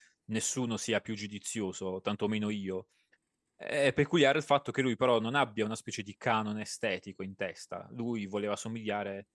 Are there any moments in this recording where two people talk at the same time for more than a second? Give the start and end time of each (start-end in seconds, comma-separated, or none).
none